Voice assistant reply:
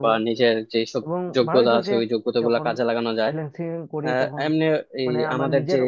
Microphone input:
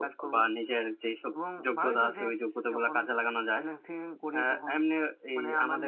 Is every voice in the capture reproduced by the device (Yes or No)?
Yes